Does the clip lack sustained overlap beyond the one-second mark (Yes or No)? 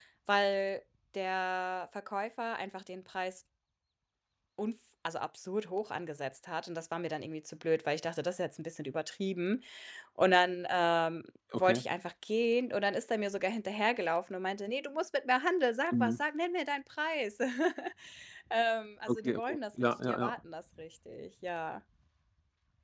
No